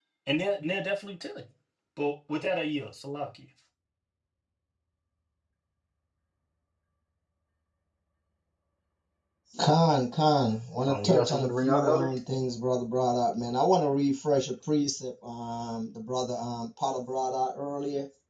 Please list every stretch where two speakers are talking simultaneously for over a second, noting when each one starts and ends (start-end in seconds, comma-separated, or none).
10.9-12.1